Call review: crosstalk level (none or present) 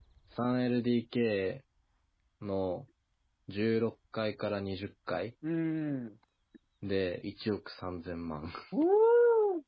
none